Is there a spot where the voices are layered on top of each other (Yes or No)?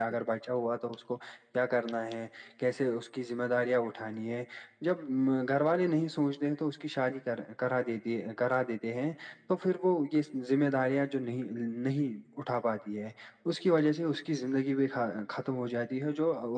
No